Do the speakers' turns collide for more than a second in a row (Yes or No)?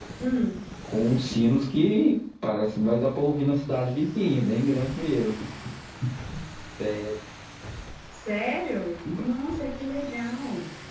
No